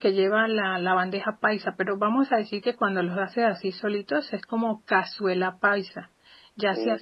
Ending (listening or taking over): listening